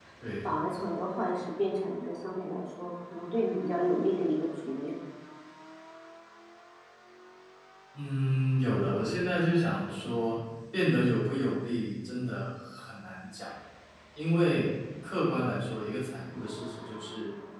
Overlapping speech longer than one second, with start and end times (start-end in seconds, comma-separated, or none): none